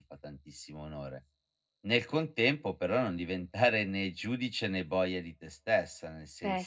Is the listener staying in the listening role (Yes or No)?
Yes